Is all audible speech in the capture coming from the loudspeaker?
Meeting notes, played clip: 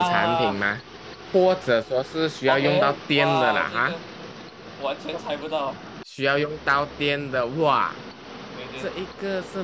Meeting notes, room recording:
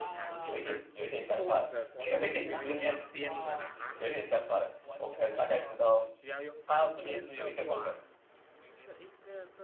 No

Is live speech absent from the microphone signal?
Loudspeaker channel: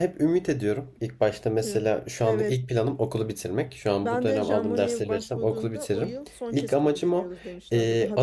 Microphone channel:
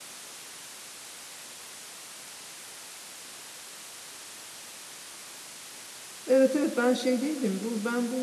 No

